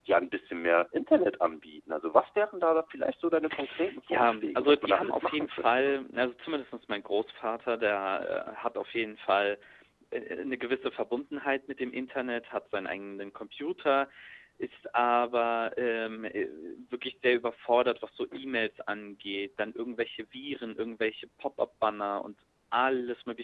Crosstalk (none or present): present